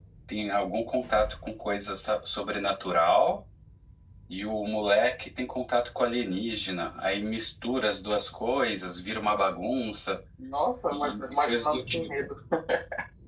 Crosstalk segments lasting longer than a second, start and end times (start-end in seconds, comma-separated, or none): 10.9-12.2